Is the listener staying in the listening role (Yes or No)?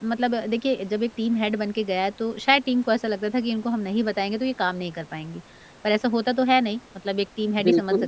Yes